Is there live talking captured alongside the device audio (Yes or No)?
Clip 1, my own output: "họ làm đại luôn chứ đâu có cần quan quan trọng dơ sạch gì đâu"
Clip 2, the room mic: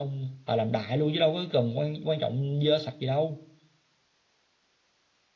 No